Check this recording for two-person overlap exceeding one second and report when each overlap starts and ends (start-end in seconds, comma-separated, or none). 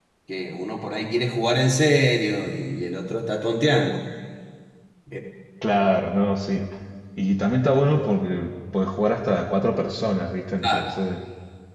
none